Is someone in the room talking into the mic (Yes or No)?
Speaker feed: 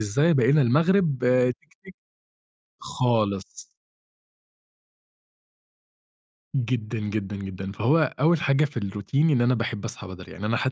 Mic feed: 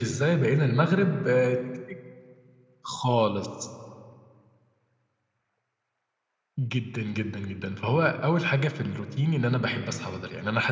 No